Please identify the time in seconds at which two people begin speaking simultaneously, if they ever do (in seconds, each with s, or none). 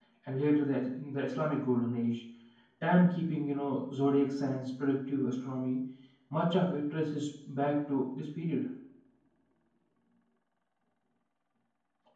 none